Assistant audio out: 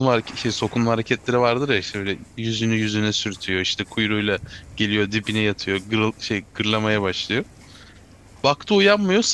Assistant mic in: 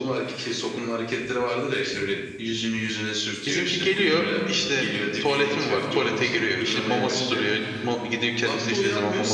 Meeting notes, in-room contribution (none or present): present